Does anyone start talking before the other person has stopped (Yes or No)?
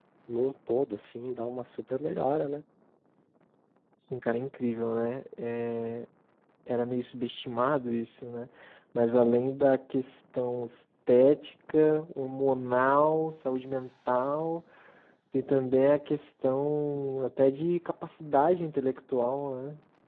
No